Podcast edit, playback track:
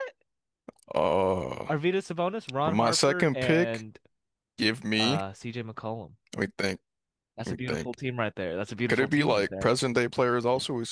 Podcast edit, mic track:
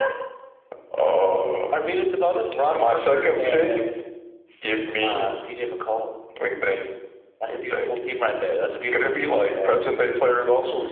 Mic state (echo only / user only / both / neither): echo only